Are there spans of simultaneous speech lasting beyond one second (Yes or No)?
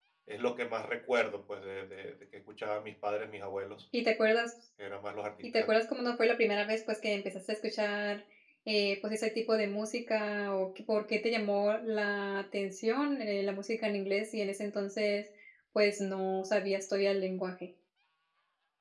No